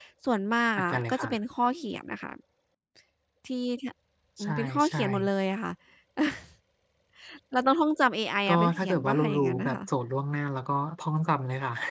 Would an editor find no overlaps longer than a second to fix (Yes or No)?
No